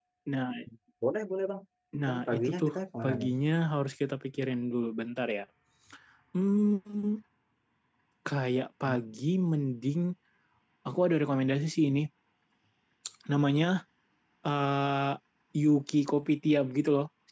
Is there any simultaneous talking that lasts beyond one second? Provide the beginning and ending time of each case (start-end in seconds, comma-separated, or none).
2.0-3.3